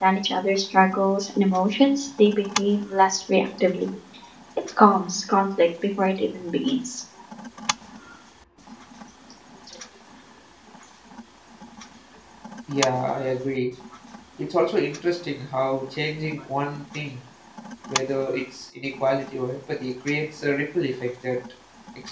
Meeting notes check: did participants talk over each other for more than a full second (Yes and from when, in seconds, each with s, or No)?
No